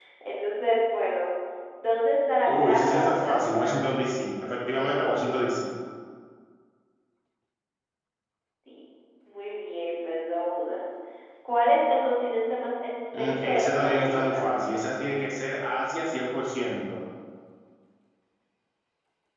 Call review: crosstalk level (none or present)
present